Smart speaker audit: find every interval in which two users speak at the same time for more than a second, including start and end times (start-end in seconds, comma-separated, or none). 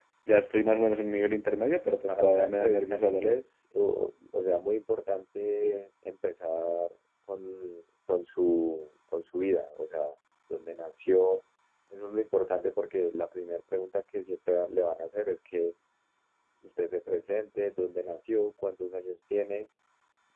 2.1-3.4